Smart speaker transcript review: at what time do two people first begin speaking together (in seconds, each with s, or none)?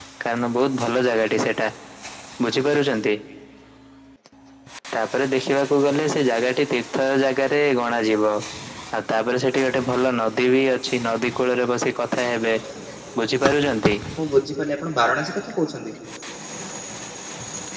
none